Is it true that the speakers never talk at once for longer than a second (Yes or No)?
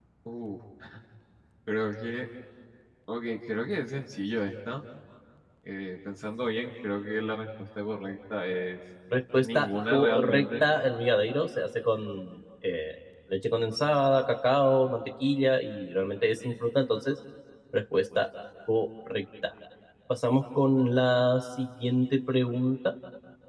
No